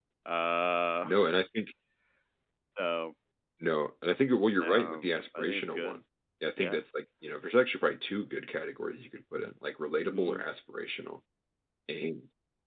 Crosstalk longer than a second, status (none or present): present